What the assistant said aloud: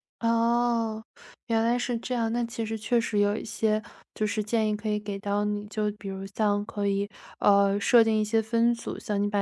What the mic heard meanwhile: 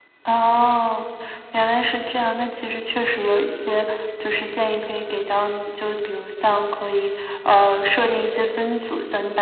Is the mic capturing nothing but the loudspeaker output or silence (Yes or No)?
Yes